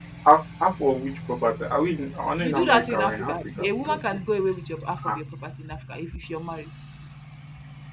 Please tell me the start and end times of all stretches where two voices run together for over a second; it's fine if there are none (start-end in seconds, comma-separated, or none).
2.4-4.0